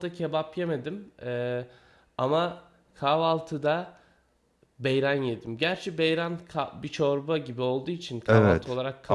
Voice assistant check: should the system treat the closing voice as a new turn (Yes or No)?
Yes